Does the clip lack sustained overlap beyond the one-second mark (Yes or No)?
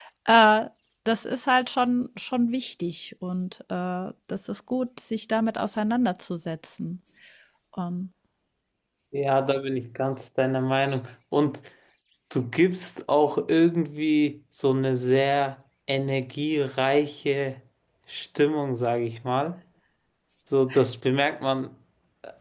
Yes